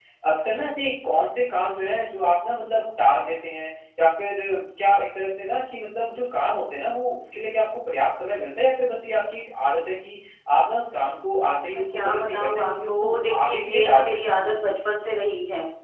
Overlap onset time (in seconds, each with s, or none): 11.7 s